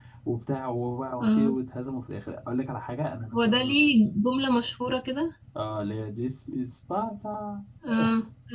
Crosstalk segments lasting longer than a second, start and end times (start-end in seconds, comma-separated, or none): none